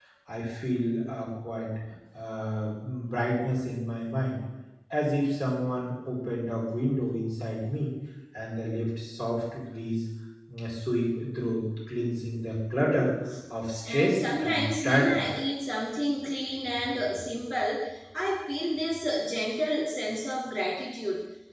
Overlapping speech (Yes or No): Yes